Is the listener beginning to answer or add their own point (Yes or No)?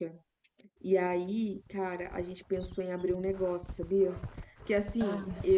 No